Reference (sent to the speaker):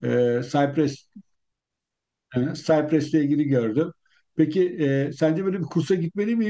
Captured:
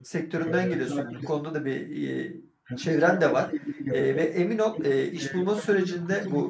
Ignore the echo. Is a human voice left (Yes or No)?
Yes